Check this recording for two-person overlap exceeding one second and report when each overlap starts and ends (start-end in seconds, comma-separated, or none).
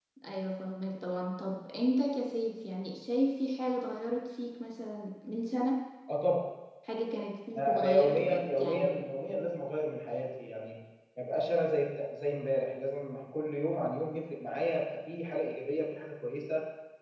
7.6-8.9